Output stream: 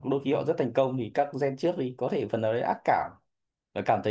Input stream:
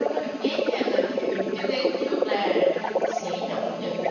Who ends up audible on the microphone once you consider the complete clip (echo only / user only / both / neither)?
both